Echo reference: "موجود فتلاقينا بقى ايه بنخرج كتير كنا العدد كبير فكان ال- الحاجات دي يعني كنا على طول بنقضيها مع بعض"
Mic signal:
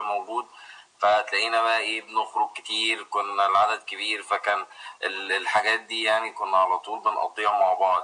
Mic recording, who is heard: echo only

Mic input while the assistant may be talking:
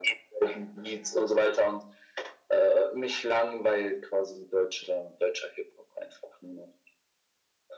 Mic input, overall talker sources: echo only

